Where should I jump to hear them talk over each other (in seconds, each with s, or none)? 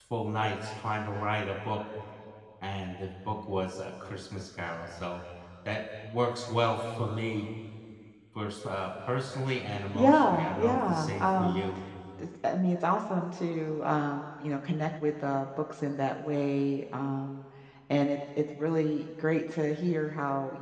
9.9 s